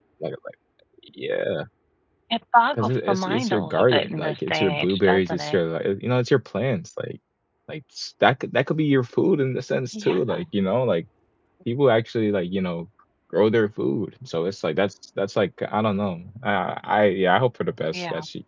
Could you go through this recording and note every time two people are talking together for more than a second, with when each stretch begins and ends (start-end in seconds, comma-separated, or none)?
2.7-5.6